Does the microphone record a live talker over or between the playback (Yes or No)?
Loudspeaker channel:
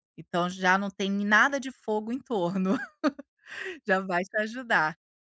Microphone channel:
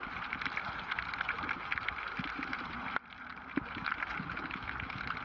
No